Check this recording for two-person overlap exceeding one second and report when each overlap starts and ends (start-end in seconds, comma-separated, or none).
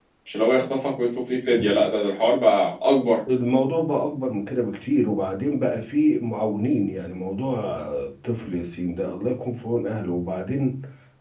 none